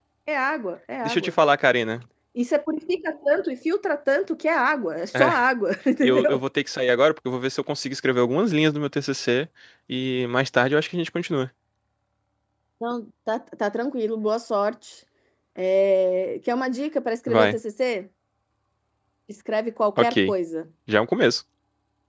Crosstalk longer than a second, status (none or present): none